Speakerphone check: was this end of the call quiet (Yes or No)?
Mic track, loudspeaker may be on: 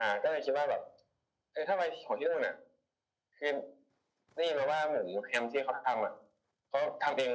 Yes